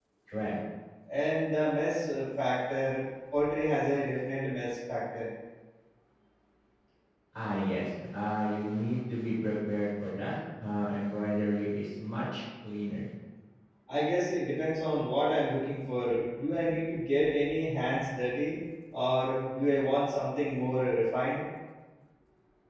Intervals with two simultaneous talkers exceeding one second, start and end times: none

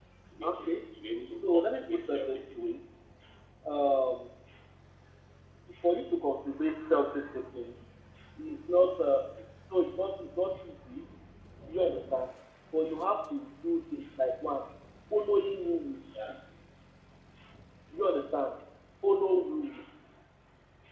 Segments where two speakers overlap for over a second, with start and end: 1.4-2.6

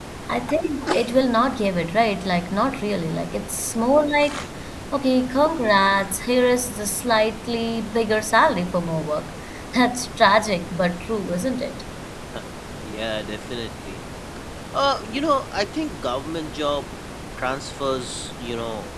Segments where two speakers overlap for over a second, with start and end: none

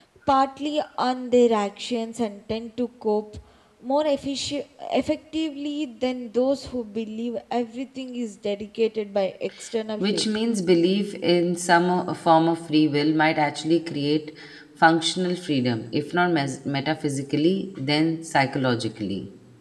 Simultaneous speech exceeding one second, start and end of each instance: none

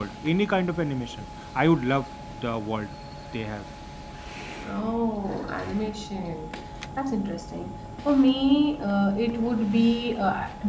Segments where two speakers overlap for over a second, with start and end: none

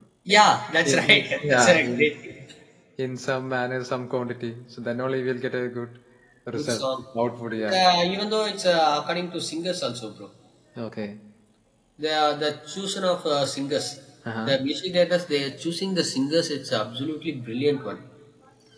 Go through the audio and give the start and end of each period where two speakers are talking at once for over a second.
0.8-2.1

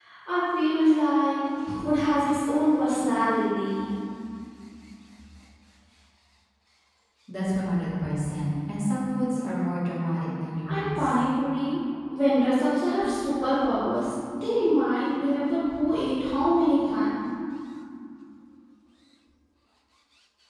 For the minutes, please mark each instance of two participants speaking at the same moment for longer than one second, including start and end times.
none

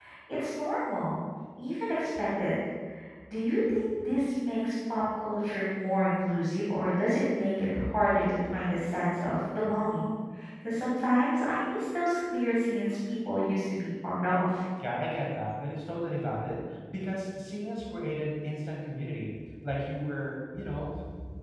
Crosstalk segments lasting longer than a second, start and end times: none

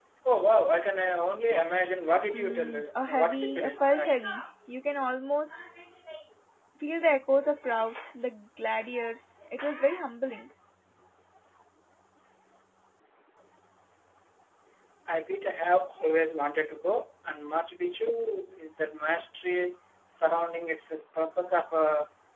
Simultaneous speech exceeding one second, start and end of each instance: 2.3-4.2

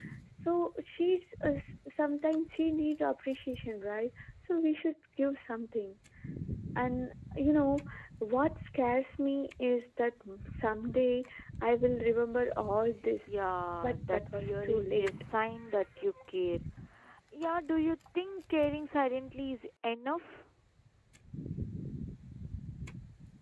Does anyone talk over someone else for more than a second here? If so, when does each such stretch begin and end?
13.8-15.1

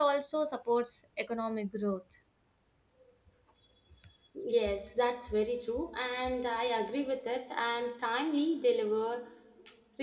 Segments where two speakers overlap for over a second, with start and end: none

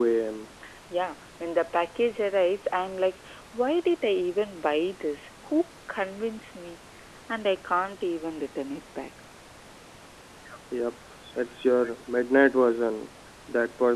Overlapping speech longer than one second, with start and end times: none

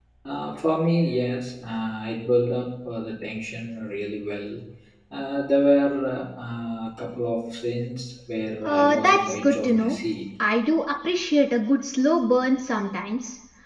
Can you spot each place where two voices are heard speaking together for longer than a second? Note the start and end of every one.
8.6-10.0

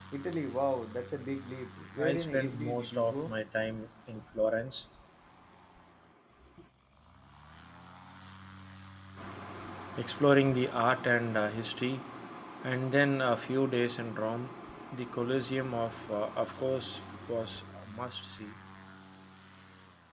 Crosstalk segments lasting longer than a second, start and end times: 2.0-3.3

